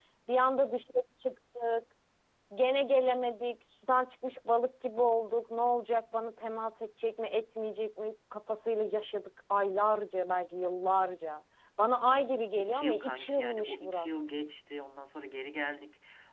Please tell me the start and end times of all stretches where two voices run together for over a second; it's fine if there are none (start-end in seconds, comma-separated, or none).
12.6-14.1